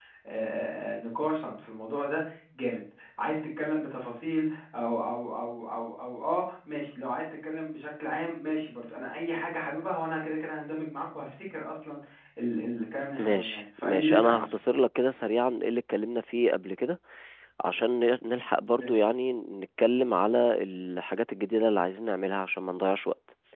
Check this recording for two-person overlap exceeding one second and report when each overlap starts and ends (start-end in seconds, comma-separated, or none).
13.2-14.5